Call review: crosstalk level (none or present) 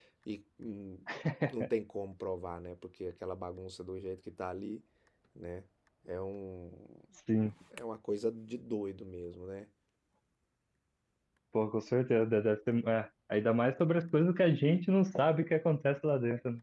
none